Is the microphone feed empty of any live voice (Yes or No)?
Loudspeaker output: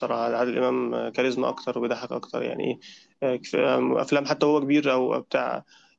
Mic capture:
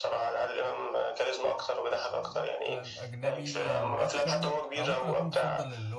No